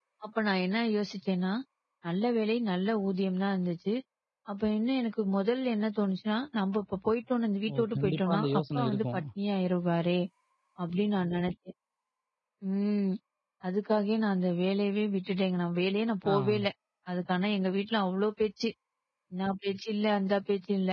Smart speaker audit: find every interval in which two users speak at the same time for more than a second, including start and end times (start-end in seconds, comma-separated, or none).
7.7-9.2